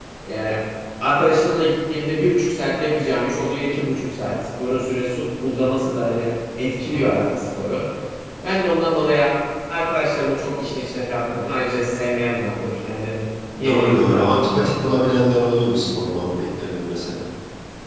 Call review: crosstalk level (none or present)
present